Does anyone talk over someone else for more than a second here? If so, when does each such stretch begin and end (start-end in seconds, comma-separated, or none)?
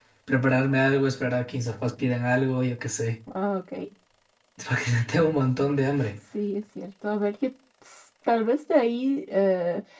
none